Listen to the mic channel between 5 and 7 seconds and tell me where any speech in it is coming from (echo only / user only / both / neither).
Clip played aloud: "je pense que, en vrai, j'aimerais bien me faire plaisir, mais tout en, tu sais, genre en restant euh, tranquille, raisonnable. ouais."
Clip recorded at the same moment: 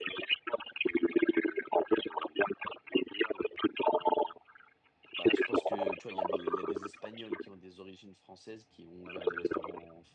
both